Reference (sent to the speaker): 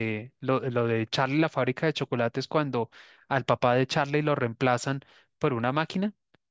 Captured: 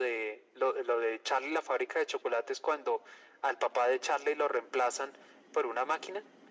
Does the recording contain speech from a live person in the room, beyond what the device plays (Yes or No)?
No